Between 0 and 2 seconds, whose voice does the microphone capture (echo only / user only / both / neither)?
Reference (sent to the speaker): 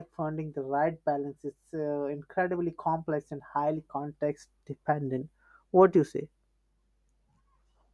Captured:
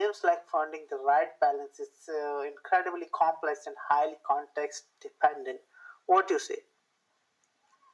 echo only